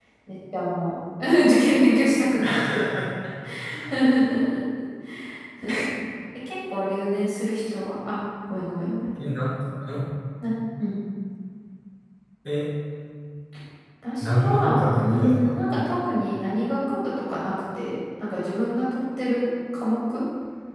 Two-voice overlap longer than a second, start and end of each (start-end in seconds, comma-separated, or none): 14.2-15.7